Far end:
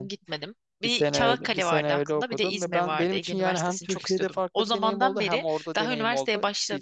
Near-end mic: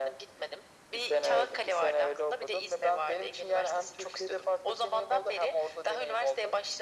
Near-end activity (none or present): none